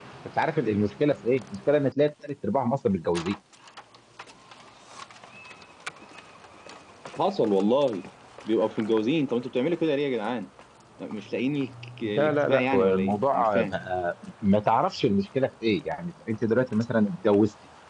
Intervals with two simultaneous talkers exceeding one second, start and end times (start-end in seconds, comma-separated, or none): 12.0-13.7